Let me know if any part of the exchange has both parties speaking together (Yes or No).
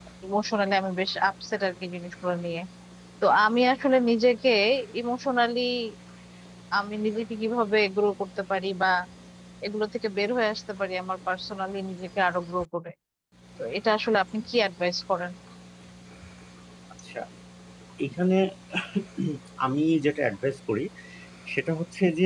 No